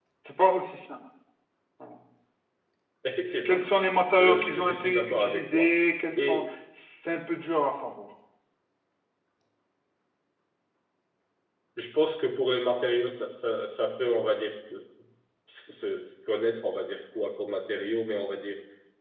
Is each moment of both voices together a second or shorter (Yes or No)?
No